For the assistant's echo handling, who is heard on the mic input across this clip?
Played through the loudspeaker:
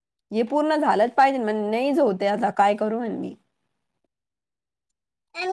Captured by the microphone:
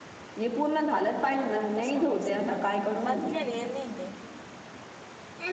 both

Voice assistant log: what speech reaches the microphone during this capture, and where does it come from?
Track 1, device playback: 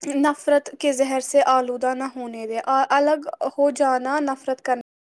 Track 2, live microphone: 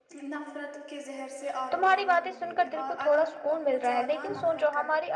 both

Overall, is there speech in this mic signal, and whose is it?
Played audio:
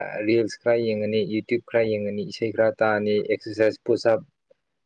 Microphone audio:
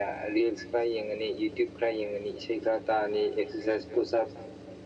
echo only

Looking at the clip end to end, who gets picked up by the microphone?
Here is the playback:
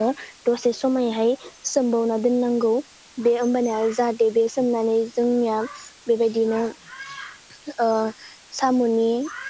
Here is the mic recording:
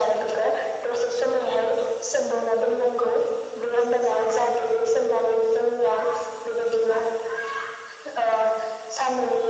echo only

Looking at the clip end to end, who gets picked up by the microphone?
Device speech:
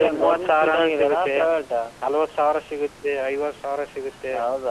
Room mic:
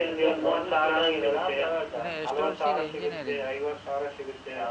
both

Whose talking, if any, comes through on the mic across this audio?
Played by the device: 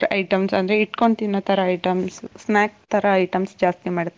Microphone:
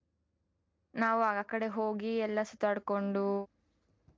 user only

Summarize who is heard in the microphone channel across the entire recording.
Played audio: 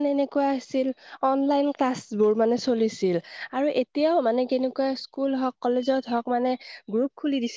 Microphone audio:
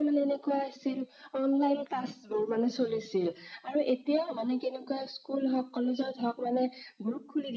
echo only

